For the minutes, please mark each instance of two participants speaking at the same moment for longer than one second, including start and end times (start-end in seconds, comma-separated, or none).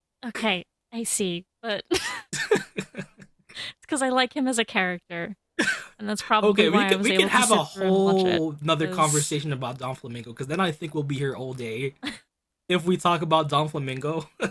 6.4-8.4